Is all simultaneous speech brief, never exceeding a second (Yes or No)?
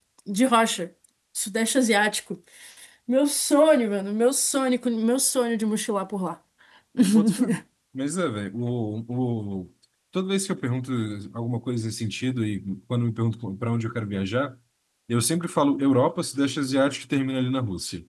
Yes